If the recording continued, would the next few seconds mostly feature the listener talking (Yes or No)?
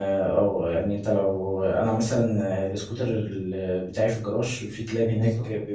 No